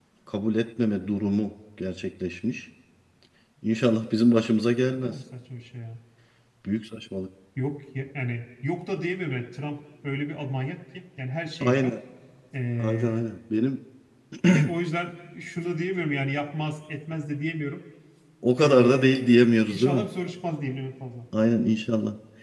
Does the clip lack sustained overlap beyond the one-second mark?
No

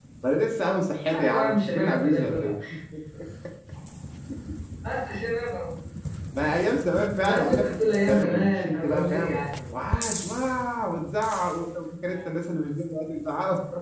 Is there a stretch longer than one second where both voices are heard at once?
Yes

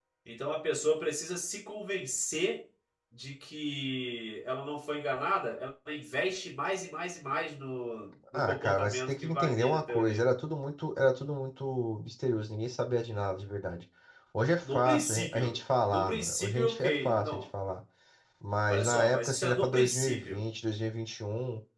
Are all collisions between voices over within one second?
No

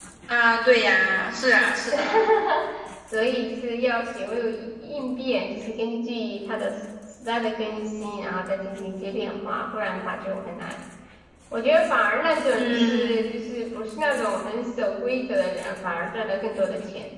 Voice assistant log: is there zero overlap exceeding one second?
Yes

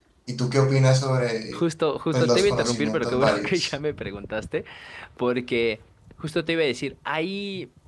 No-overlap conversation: No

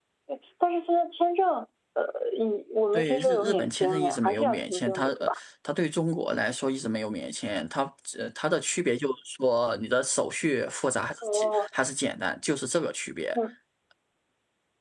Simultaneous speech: Yes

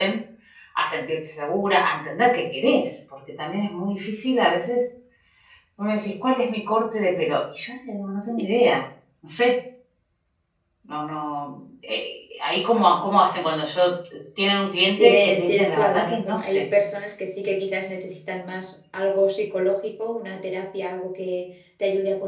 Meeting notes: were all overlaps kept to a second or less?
No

